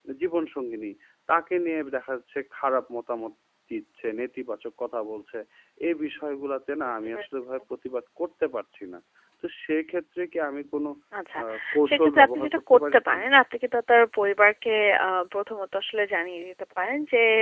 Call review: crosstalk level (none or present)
present